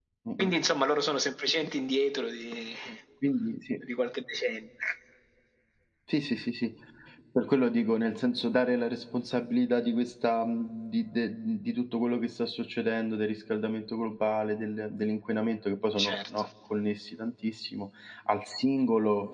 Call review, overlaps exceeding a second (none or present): none